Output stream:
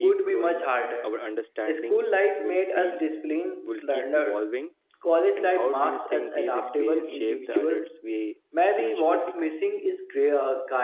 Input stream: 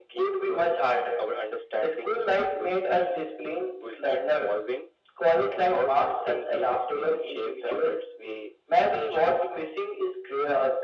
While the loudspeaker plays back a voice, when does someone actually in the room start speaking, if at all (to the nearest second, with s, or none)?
none